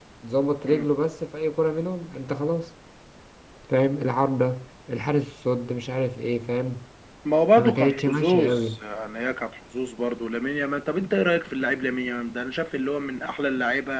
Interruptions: present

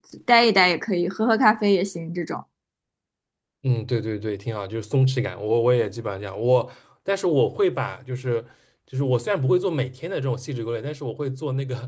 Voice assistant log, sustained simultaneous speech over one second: none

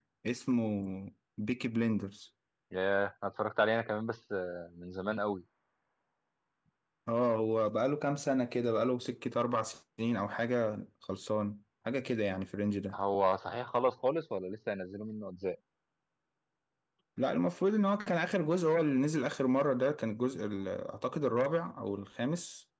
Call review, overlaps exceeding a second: none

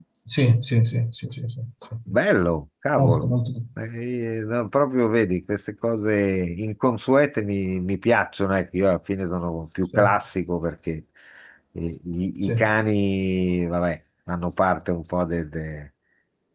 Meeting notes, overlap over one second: none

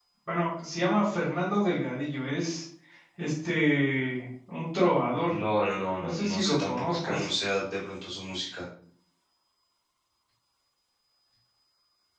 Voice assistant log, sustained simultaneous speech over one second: present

